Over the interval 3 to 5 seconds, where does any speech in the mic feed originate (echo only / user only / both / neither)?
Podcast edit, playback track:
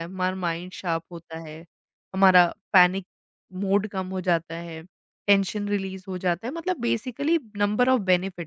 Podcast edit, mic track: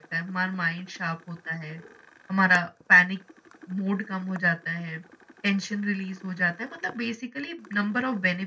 echo only